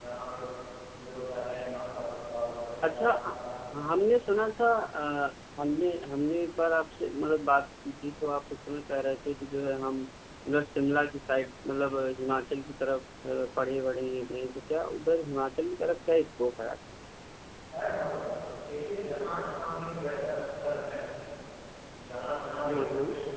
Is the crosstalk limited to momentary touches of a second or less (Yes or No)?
Yes